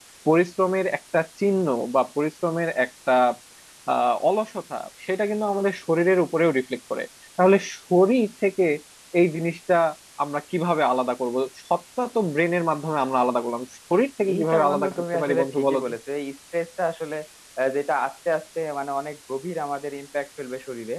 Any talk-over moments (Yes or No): Yes